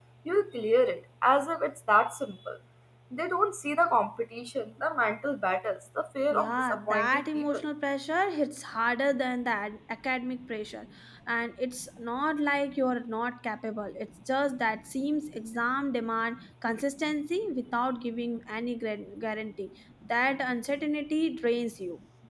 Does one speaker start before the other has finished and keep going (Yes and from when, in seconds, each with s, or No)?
Yes, from 6.3 s